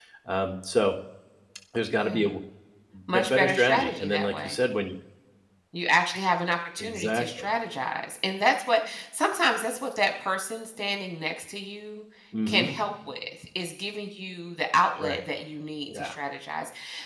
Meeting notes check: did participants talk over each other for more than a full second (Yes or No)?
Yes